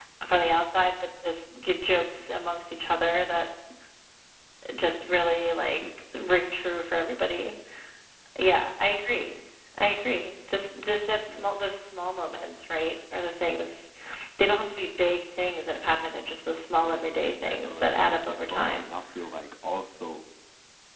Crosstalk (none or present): present